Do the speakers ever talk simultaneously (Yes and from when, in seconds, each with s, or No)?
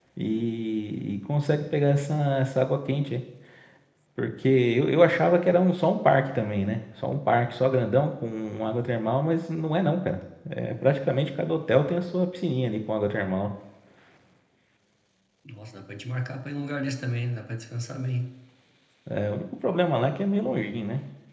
No